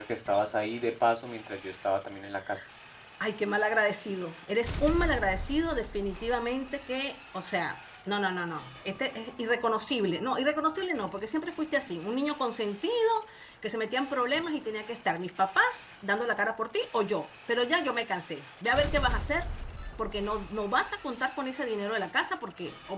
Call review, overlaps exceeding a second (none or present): none